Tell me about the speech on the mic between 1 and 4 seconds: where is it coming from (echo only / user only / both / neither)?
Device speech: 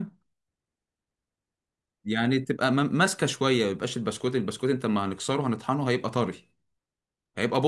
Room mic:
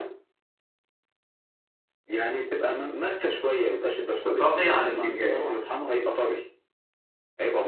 echo only